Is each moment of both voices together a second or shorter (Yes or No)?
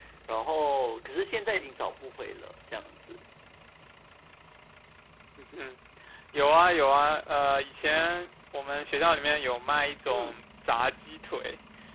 Yes